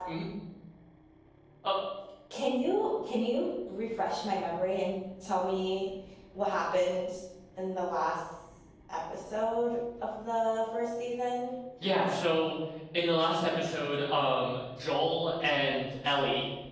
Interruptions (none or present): none